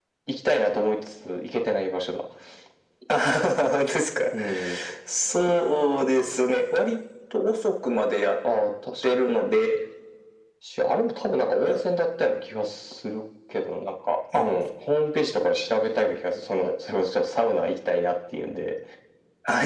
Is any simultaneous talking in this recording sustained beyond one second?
No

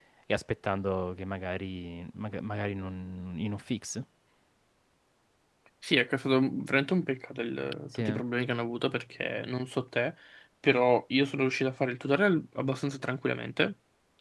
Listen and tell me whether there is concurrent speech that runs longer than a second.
No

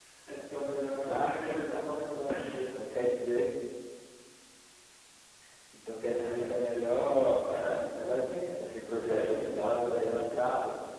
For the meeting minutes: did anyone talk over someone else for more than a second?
Yes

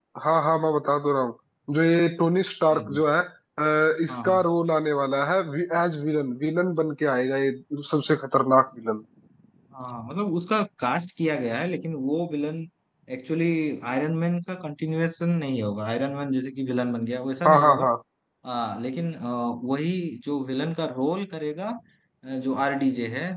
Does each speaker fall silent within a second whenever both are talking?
Yes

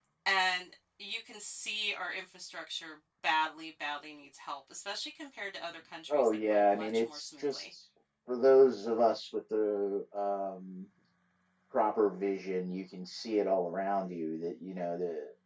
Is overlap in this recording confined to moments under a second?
No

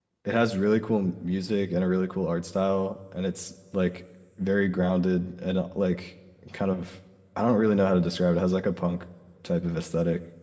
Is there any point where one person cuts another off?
No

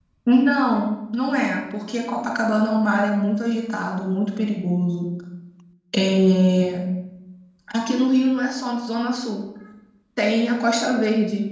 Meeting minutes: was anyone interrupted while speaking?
No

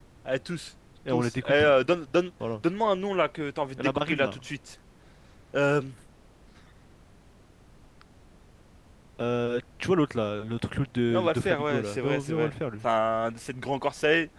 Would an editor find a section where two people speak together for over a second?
Yes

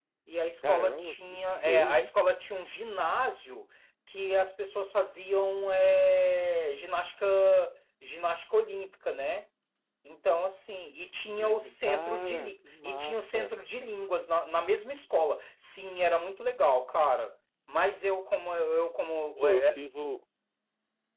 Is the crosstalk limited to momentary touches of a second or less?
No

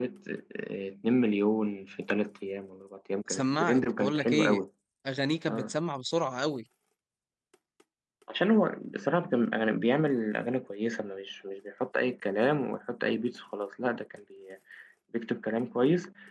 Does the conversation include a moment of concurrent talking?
Yes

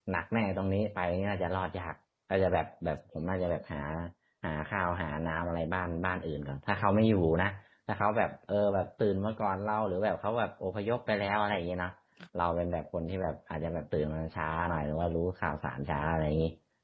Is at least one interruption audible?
No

